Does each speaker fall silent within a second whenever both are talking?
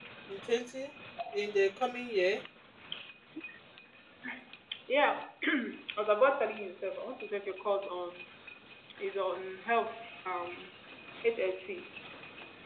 Yes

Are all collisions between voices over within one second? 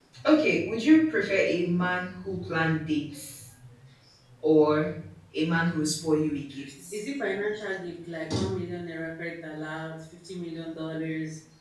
Yes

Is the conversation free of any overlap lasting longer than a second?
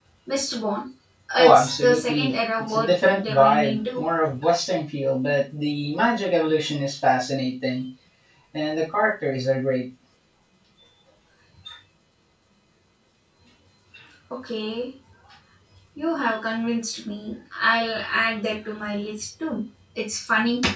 No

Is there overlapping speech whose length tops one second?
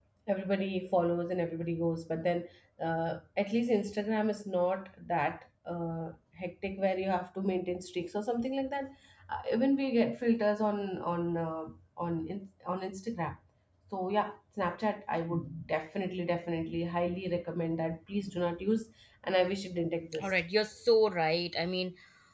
No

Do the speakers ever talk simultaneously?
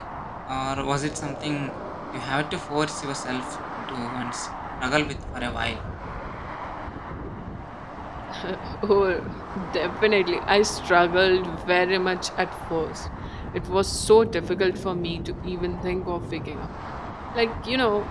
No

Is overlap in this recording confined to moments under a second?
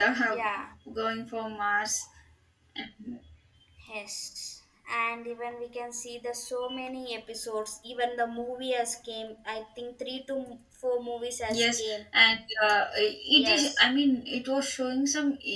Yes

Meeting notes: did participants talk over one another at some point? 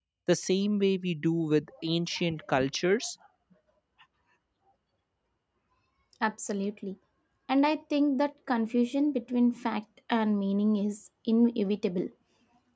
No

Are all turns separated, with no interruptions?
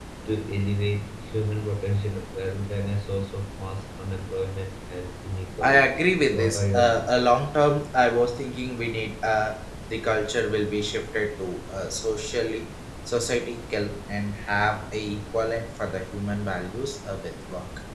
No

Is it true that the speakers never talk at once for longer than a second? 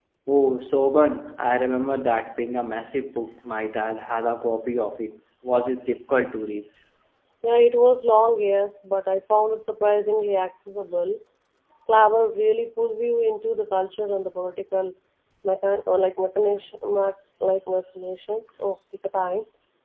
Yes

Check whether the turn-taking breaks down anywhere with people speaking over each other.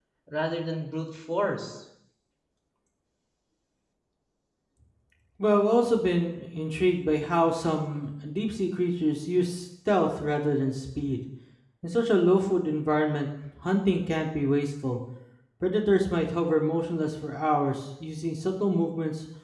No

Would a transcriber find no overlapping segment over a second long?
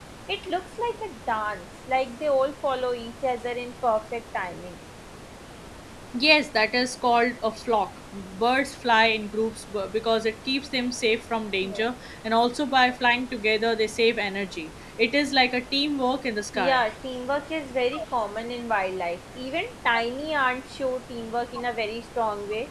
Yes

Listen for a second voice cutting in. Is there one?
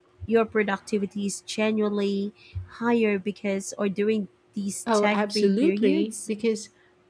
Yes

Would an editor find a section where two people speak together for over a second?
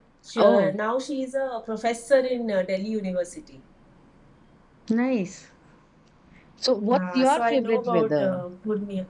Yes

